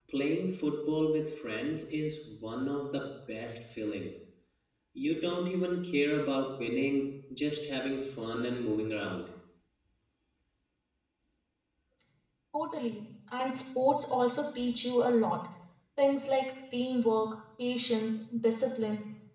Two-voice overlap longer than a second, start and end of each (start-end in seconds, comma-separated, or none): none